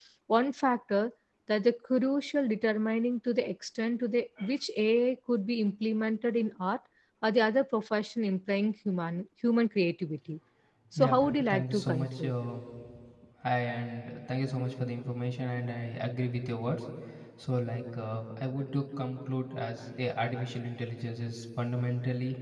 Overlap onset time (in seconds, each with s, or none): 11.0 s